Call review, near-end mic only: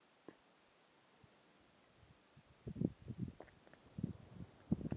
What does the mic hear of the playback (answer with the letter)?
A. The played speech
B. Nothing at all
B